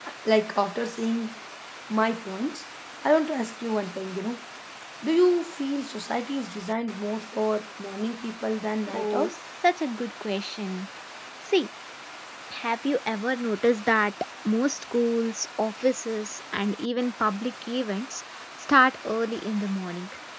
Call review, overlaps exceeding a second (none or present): none